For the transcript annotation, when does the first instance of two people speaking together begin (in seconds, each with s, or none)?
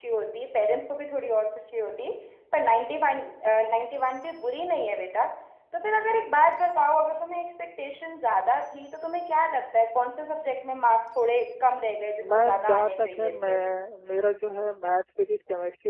12.2 s